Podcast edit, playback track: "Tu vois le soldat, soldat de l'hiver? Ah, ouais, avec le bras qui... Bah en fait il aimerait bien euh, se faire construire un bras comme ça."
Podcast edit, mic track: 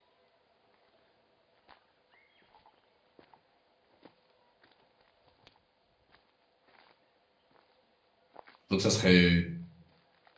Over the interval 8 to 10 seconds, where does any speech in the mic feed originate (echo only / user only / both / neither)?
user only